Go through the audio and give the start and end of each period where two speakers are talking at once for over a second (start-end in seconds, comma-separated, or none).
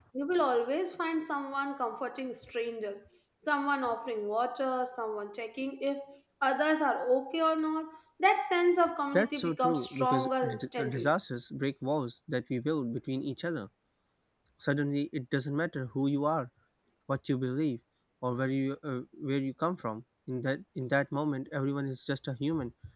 9.1-11.1